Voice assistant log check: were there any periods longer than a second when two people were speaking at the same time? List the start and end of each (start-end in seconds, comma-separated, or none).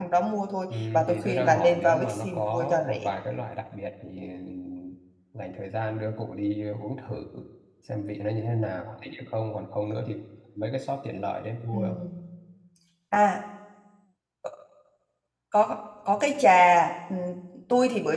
0.9-3.0